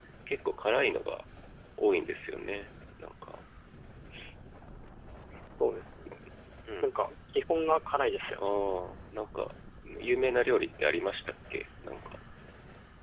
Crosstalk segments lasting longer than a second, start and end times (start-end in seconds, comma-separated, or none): none